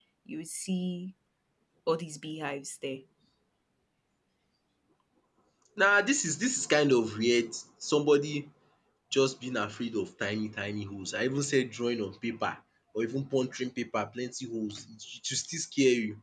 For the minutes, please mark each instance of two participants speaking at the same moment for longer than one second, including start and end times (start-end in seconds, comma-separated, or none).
none